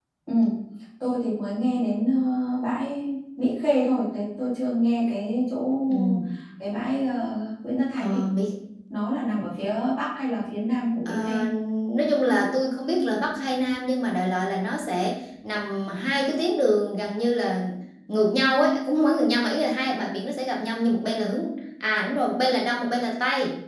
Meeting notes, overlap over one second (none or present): none